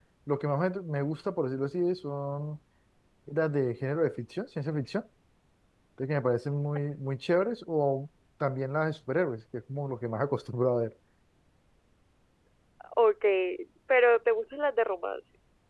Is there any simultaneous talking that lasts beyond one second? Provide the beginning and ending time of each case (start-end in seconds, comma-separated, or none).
none